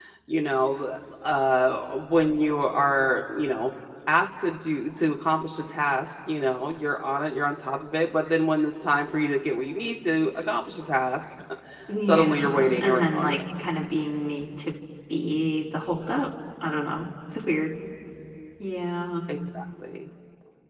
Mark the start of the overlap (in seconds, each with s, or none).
12.0 s